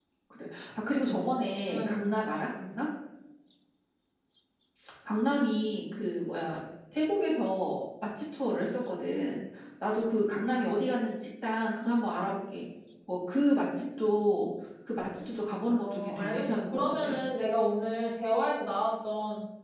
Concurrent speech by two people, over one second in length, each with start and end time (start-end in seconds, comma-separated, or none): 15.8-17.1